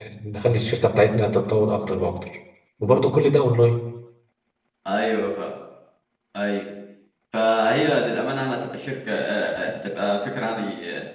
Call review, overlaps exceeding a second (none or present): none